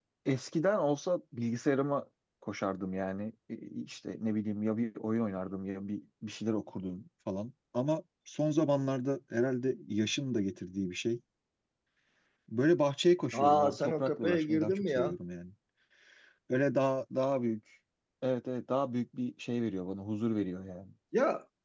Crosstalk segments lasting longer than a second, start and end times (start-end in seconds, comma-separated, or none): 13.4-15.0